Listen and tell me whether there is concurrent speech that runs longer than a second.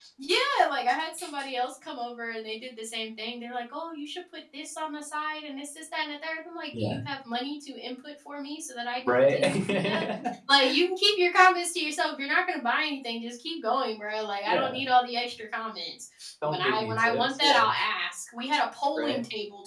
Yes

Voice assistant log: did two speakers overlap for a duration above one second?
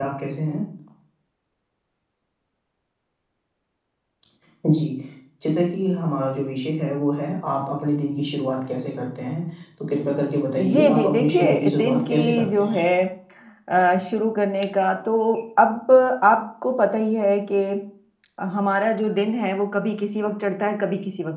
Yes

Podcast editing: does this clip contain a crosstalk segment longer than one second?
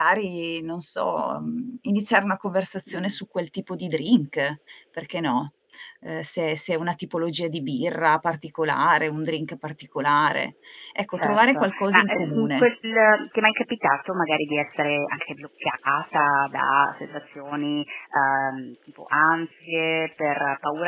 Yes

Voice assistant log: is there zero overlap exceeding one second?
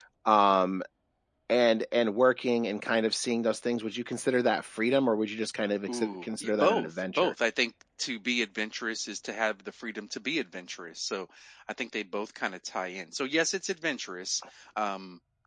No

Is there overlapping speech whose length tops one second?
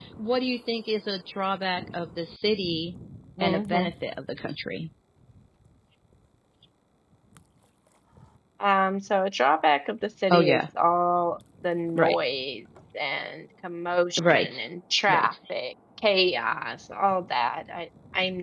No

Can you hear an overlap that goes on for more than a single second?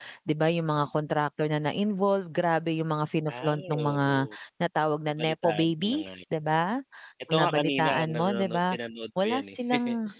Yes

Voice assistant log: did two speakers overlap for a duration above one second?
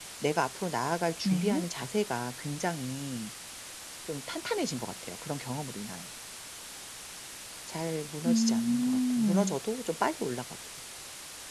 Yes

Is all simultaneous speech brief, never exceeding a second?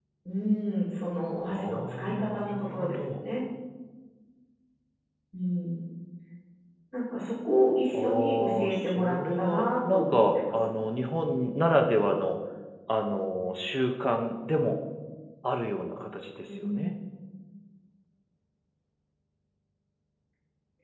No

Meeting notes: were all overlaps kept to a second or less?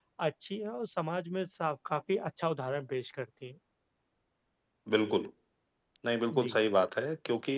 Yes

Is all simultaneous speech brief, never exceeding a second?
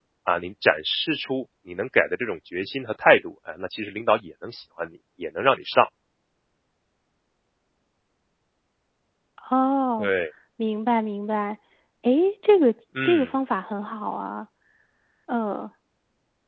Yes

